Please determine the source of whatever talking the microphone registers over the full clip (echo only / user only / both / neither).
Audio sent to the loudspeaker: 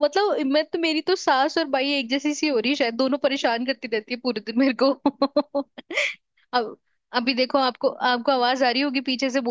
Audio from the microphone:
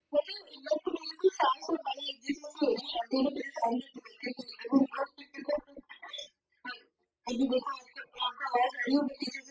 echo only